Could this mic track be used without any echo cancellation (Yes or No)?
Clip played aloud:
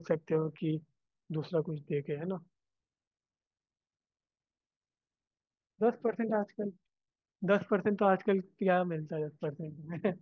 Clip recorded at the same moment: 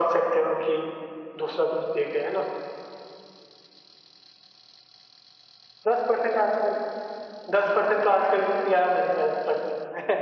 No